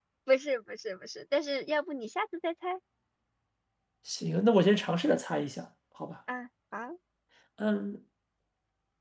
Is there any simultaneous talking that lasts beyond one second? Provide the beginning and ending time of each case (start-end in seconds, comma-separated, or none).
none